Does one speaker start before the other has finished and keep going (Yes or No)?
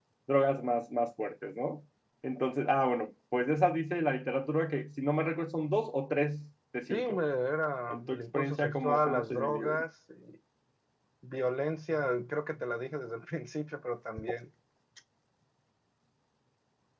Yes